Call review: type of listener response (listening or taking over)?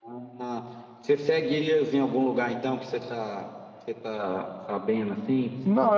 taking over